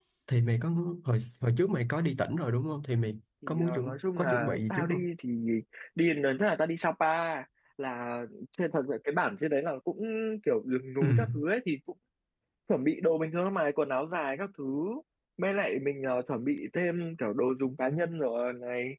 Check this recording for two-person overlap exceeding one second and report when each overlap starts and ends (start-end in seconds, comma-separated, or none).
3.5-5.0